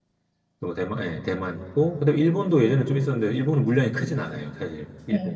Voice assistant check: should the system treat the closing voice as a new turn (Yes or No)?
Yes